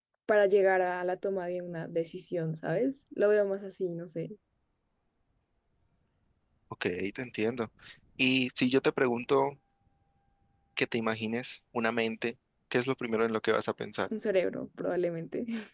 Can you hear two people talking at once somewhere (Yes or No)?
No